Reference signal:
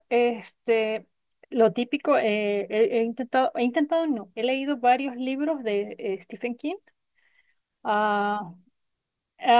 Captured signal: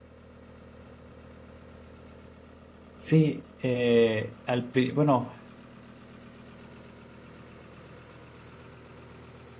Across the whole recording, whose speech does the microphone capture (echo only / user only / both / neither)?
user only